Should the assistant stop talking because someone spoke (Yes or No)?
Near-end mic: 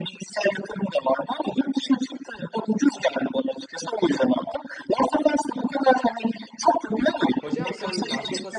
Yes